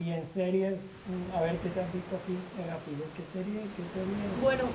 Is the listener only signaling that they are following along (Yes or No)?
No